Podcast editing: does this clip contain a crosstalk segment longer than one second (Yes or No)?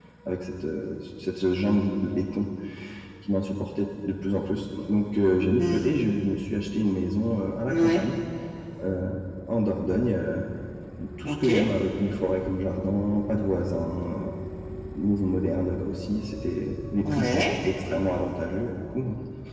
No